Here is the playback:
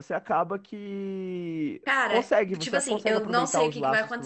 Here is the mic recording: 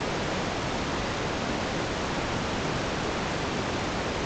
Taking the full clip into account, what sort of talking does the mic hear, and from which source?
neither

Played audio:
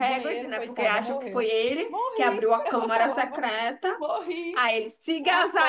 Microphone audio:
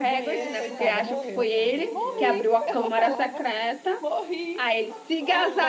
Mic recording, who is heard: both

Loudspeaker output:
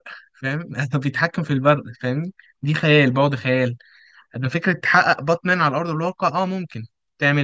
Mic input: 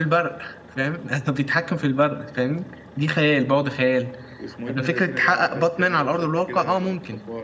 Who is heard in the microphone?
both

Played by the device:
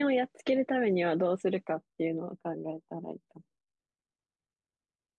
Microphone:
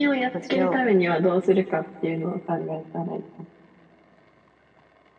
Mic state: both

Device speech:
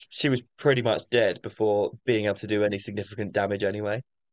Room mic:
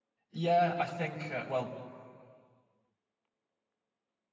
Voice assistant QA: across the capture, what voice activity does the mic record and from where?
user only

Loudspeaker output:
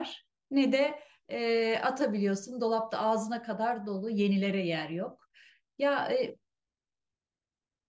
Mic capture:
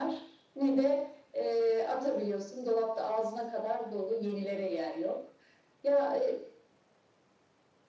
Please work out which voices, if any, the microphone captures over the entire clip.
echo only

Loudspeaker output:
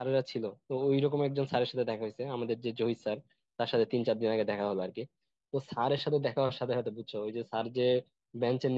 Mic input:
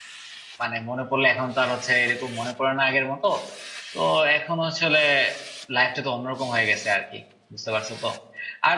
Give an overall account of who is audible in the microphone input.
user only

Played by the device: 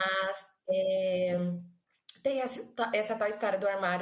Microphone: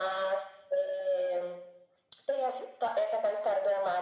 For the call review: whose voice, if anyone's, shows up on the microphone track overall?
echo only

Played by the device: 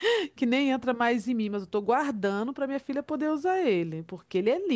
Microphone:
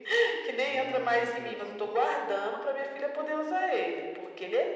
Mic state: both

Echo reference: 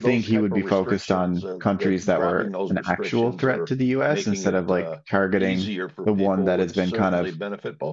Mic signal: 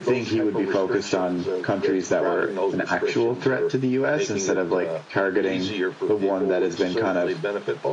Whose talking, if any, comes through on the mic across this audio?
echo only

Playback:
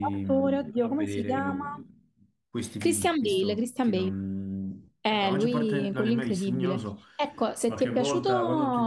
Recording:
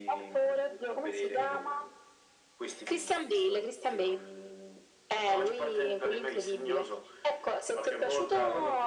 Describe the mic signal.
echo only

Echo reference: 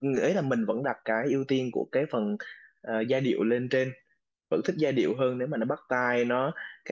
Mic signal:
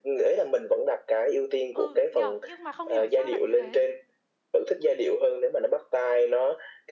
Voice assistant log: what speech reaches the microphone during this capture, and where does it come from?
both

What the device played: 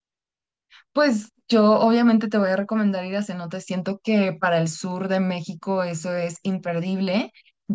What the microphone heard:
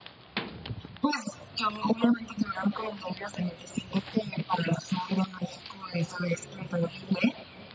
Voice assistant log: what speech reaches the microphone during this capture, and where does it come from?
echo only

